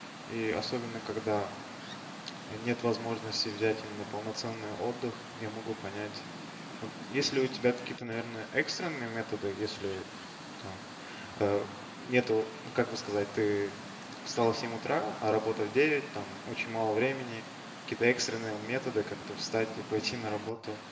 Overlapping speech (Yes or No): No